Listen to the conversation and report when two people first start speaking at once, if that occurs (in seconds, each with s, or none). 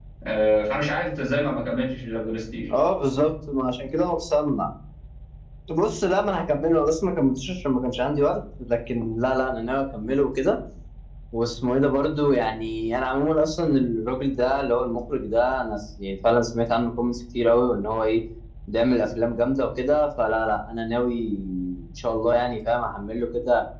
none